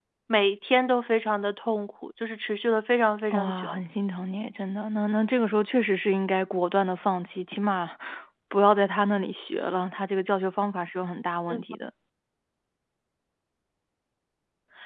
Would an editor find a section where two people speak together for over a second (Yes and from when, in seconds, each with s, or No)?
No